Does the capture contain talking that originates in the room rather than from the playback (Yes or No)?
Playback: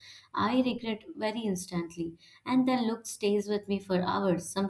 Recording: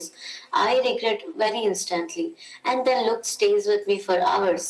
No